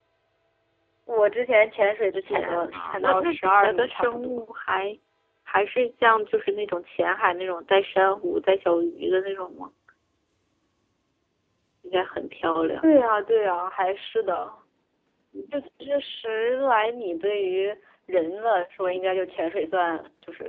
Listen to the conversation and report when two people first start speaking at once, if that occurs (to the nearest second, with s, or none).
2 s